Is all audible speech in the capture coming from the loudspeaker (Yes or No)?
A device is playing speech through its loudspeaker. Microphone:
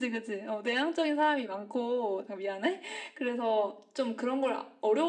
Yes